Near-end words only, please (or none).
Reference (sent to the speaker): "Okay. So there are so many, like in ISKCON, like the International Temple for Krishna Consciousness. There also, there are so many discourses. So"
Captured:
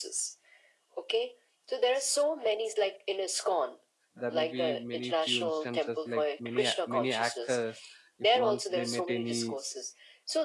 there may be many few instances like many a- many actors if once they met any